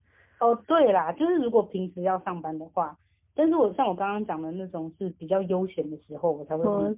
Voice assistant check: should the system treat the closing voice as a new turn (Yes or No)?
No